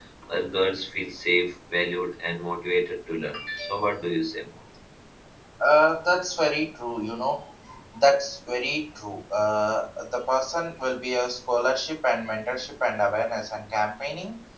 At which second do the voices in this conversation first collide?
none

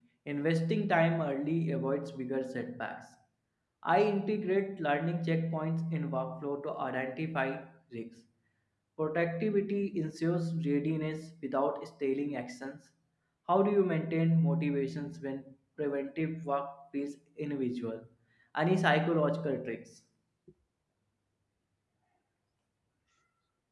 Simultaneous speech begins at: none

